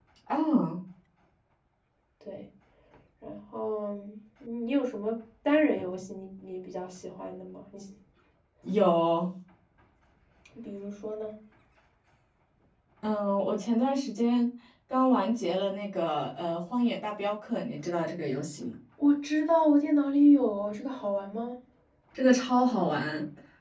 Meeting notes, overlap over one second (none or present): none